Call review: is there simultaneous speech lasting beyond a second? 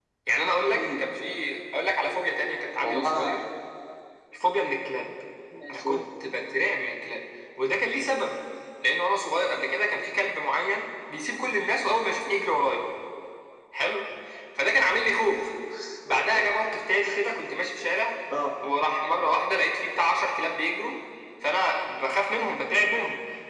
No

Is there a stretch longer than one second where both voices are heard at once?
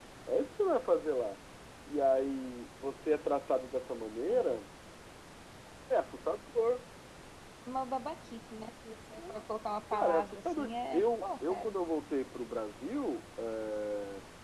Yes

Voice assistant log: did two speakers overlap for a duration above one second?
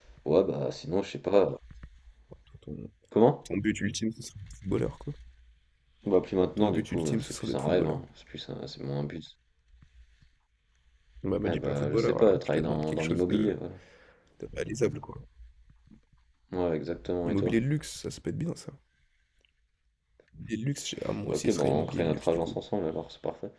Yes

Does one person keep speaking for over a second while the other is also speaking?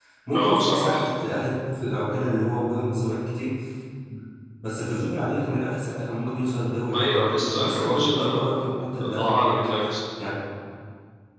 Yes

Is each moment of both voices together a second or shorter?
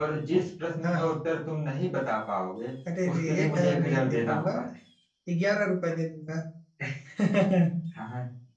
No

